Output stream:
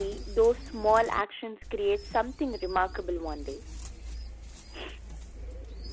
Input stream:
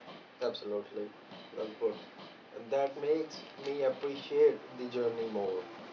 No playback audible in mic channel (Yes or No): Yes